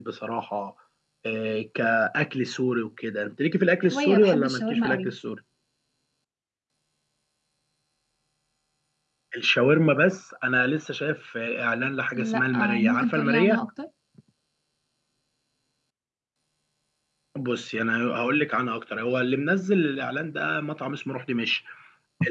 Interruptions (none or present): present